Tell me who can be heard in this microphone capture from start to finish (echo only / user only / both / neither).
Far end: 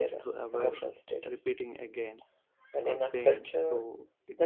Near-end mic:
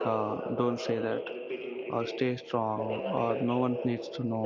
both